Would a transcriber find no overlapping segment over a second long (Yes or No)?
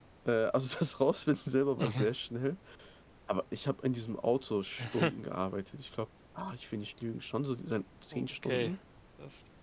Yes